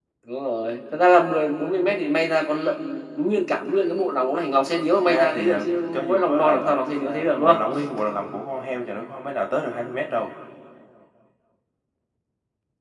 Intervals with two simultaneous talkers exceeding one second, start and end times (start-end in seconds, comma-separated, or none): 4.9-7.6